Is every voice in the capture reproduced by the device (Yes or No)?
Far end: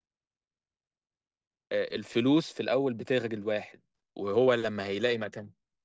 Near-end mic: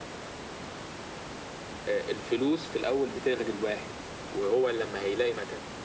Yes